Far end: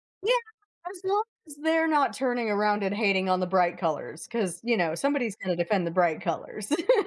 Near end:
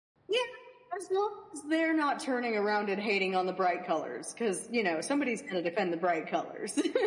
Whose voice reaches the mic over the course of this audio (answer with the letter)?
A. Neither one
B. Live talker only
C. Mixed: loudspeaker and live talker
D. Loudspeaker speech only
D